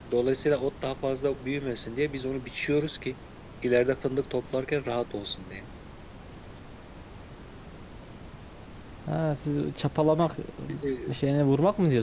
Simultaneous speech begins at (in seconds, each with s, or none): none